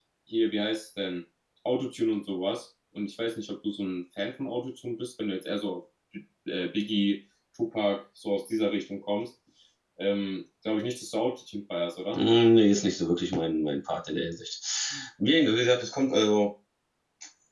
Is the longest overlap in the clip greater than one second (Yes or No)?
No